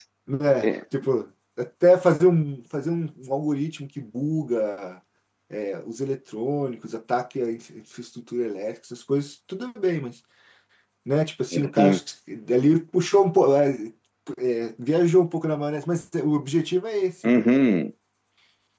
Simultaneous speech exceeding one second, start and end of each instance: none

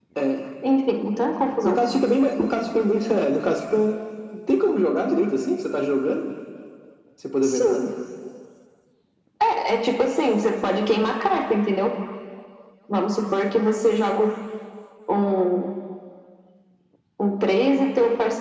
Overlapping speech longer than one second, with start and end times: none

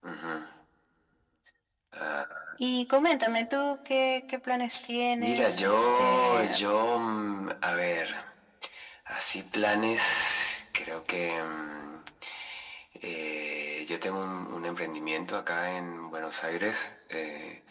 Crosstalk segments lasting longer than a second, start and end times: 5.2-6.6

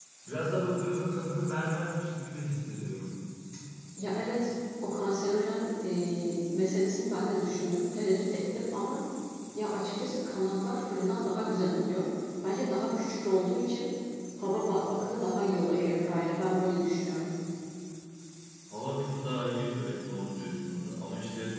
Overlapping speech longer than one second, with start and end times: none

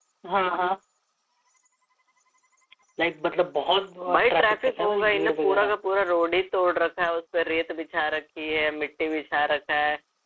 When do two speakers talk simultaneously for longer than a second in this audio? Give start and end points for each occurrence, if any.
4.1-5.7

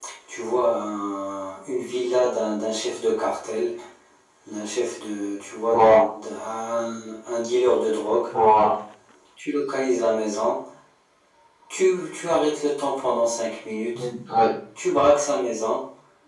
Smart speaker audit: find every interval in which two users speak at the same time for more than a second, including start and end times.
none

